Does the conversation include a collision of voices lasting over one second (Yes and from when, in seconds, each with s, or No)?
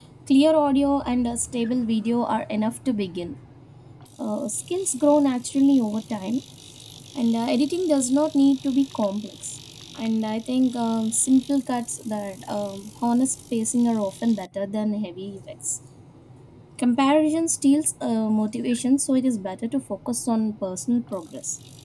No